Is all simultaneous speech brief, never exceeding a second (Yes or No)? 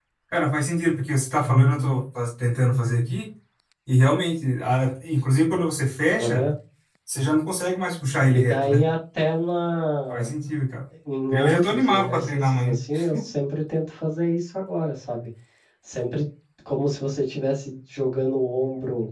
No